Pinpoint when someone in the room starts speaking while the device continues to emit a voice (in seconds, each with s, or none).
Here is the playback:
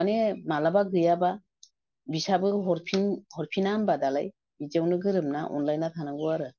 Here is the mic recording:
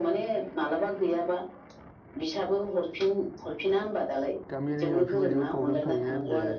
4.5 s